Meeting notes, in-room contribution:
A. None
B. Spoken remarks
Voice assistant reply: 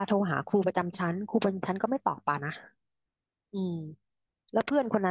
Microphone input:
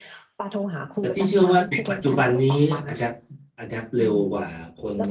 B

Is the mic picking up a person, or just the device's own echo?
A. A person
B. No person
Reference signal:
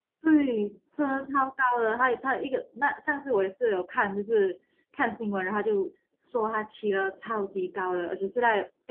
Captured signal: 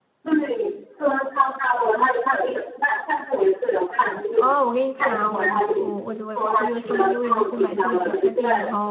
A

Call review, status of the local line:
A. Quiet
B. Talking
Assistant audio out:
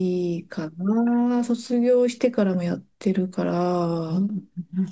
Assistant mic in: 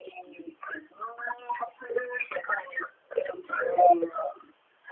A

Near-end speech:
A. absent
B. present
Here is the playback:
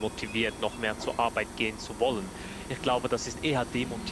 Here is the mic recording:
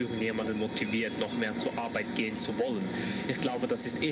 B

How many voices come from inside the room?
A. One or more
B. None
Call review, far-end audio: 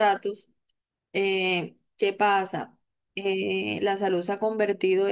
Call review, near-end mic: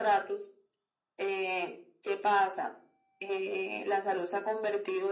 B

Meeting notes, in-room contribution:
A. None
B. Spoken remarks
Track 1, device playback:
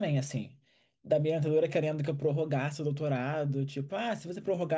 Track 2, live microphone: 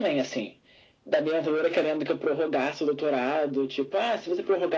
A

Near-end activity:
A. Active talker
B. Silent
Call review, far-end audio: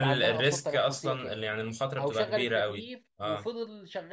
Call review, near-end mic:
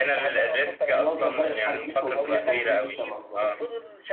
A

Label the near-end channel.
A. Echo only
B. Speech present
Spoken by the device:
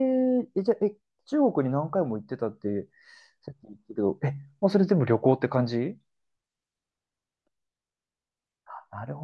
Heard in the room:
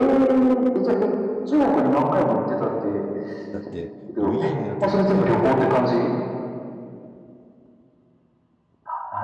B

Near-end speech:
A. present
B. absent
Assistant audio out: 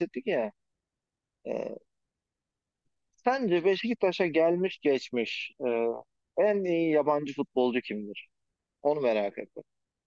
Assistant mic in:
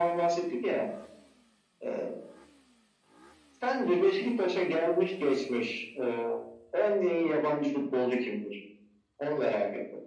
B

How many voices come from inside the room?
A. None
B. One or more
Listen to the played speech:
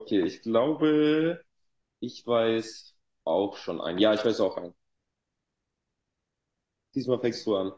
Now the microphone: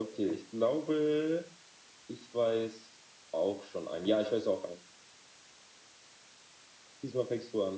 A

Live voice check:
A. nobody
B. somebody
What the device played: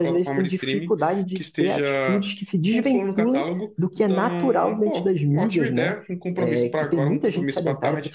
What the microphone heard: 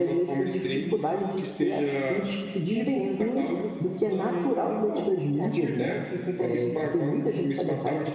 A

